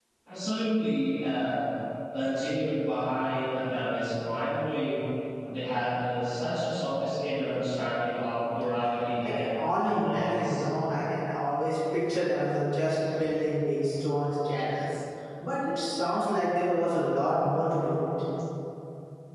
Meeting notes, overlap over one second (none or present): present